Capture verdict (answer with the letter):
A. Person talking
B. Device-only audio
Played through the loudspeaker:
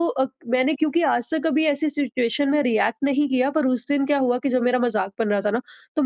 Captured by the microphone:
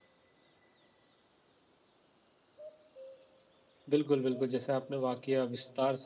A